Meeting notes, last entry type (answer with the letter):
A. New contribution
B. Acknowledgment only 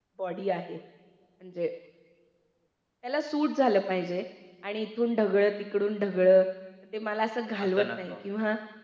B